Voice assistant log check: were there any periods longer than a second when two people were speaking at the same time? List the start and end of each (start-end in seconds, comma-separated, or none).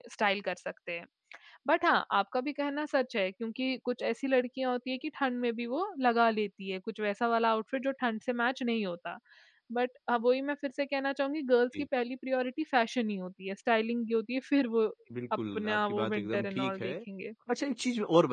15.6-16.9